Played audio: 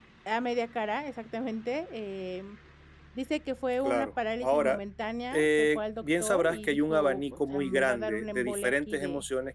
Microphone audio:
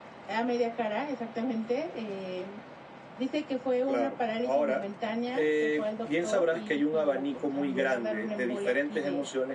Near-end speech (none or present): none